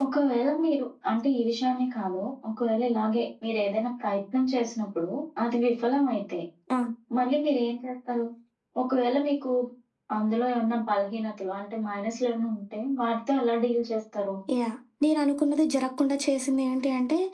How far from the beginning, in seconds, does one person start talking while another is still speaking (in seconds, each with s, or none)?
none